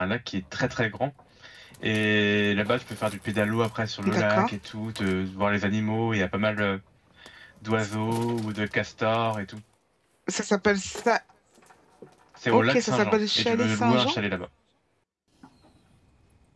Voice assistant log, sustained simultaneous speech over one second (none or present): present